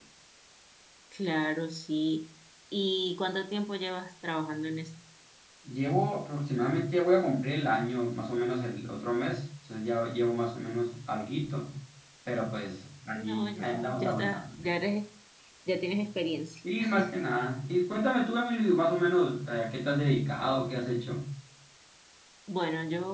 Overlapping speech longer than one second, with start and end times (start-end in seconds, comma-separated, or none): 13.1-14.4